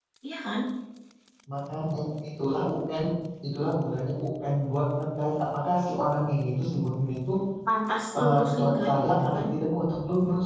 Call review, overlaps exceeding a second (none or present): present